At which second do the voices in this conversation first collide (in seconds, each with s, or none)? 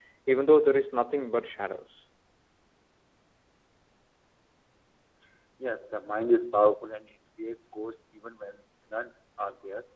none